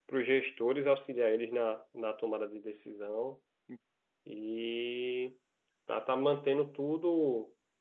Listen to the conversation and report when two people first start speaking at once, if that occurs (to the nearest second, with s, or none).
none